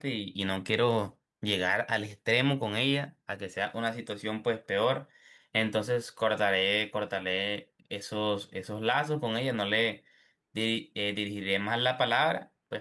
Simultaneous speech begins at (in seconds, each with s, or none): none